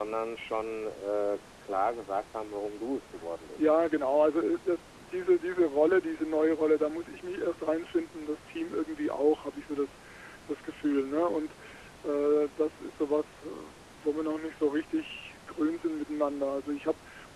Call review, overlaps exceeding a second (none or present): none